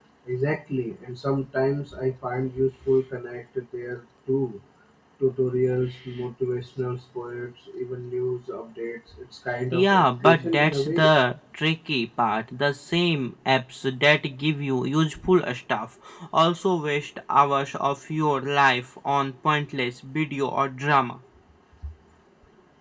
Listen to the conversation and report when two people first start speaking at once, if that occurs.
10 s

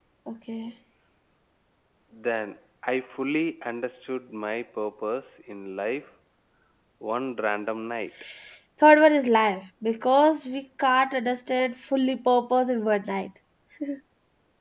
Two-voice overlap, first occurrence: none

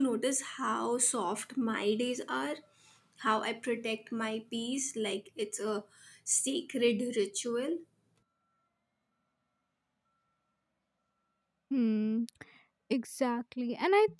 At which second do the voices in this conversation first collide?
none

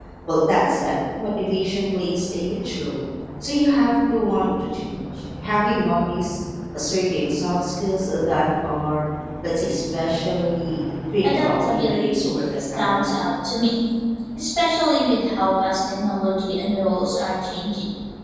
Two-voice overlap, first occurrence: 11 s

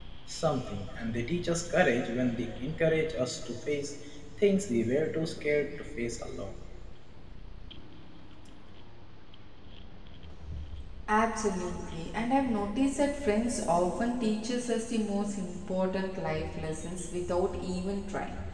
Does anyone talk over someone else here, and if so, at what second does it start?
none

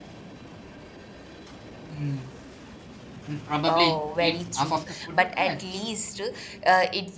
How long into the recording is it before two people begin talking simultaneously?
4 s

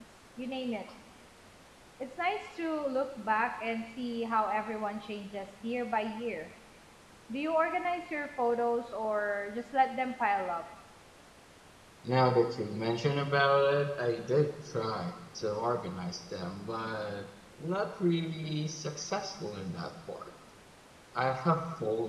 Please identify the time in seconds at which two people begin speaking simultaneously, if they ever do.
none

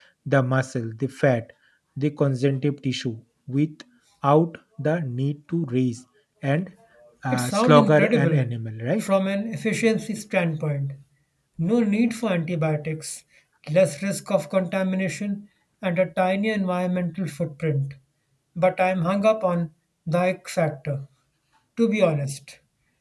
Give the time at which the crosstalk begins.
7 s

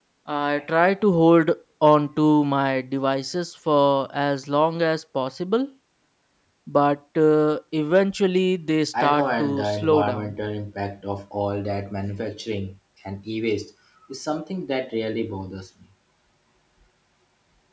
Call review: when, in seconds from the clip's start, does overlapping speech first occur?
9 s

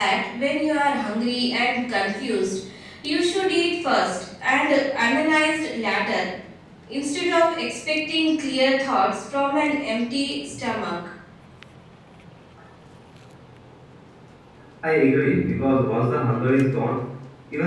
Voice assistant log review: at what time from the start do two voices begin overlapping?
none

